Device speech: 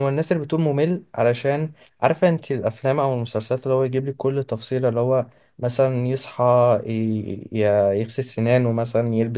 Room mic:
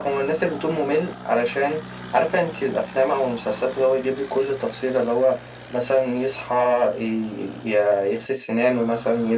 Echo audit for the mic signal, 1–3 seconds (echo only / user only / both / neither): echo only